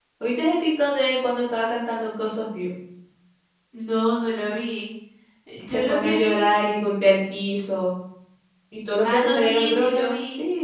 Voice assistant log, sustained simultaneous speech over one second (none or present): present